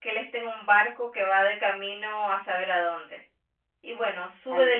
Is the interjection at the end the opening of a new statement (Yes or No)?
Yes